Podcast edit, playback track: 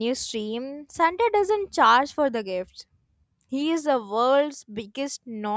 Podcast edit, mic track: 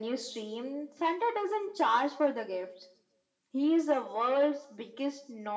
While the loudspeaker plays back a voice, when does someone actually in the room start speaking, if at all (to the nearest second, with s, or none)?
none